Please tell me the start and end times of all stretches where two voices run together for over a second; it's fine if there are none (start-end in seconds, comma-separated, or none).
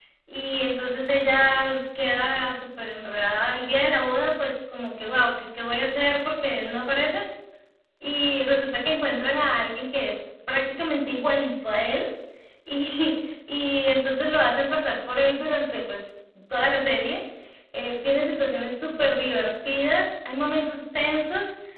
none